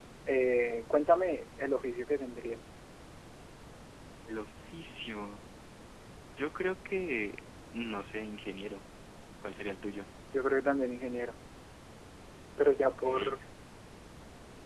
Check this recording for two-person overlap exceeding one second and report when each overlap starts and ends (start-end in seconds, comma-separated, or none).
none